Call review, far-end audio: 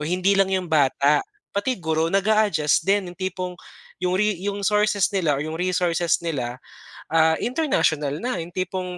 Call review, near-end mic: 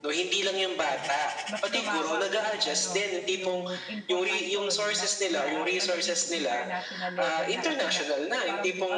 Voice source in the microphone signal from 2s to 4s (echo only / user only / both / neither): both